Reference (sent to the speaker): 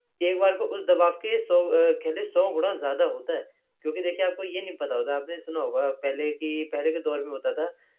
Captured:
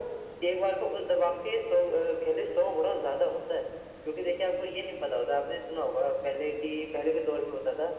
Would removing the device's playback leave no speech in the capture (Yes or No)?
Yes